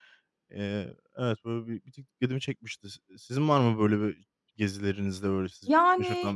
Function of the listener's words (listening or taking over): taking over